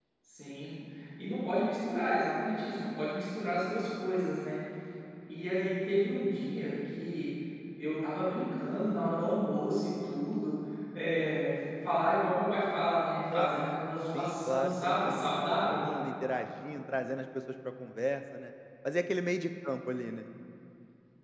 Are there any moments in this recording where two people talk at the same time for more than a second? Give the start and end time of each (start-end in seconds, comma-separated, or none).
14.1-15.9